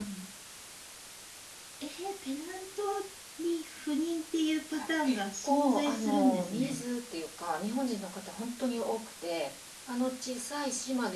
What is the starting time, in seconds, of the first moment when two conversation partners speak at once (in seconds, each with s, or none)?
4.8 s